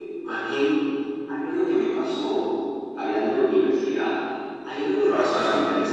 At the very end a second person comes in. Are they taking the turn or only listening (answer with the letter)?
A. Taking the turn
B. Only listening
B